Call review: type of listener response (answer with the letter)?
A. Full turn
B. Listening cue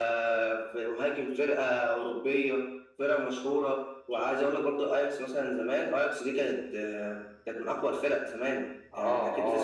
A